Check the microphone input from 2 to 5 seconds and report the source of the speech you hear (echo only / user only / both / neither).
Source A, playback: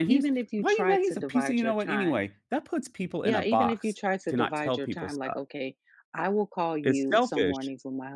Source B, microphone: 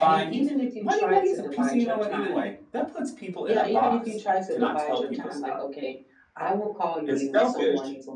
echo only